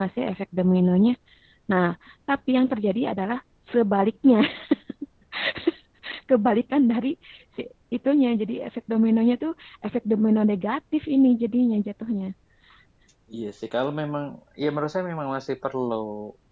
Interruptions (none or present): none